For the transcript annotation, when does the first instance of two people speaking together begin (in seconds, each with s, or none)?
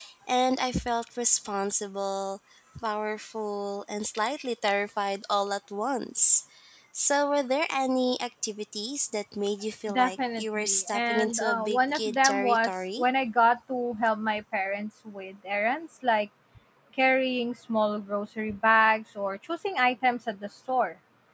9.9 s